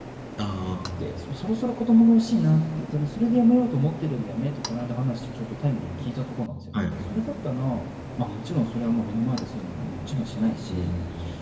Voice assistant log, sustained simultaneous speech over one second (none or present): none